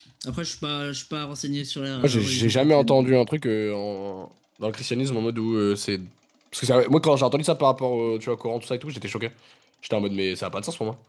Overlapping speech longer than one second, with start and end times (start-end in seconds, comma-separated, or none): 2.0-3.2